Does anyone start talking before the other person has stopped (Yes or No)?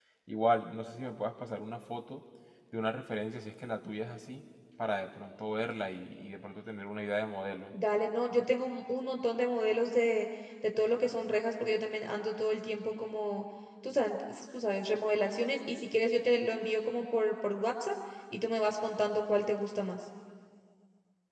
No